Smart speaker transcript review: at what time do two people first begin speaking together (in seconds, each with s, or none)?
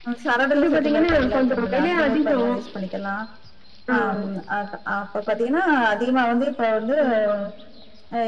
0.6 s